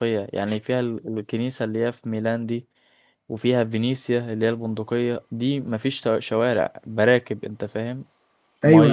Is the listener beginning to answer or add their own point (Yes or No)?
Yes